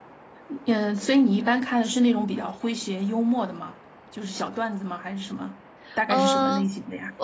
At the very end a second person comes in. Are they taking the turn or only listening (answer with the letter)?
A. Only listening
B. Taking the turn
B